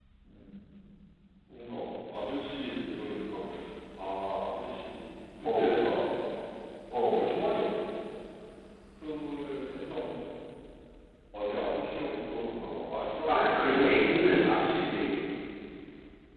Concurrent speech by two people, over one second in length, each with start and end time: 13.3-14.5

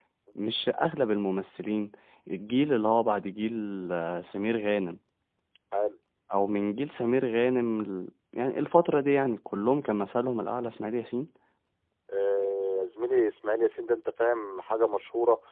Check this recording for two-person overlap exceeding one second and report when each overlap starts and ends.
none

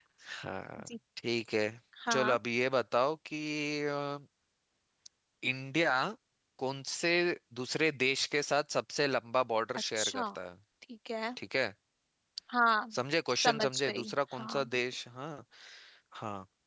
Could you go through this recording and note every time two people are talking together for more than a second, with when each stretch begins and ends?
13.4-14.7

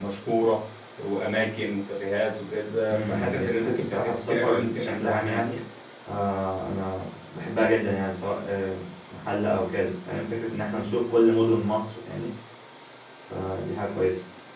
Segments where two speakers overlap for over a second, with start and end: 2.9-5.4

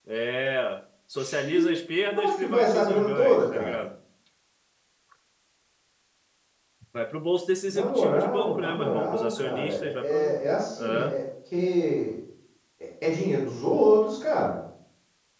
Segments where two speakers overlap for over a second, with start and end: 2.1-3.8, 7.7-10.4

